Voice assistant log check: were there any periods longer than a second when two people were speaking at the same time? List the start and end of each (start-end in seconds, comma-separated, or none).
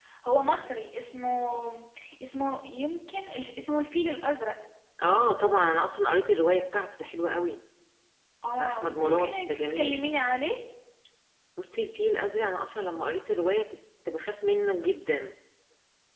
8.6-10.0